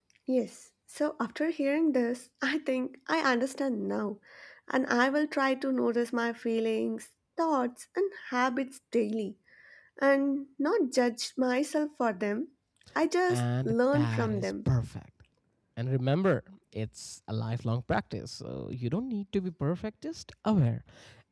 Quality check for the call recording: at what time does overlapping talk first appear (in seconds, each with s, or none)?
13.3 s